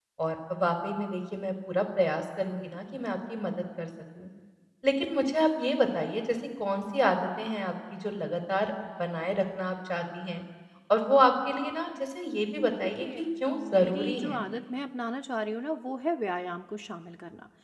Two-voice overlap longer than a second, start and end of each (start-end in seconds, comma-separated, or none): 13.0-14.4